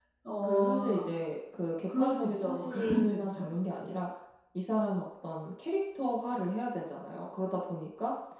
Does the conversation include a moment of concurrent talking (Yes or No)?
Yes